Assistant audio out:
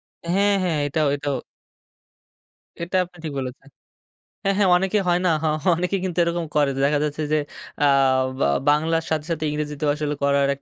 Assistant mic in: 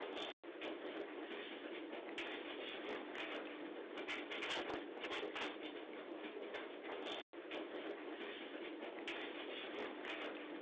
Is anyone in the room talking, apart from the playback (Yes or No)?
No